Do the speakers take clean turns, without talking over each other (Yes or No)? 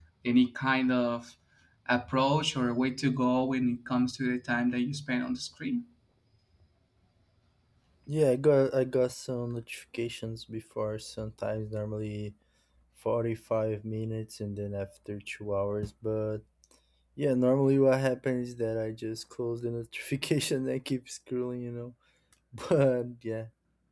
Yes